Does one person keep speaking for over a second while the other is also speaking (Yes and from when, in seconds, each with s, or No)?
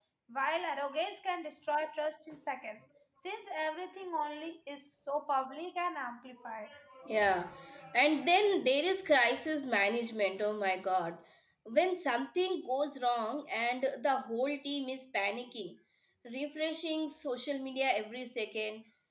No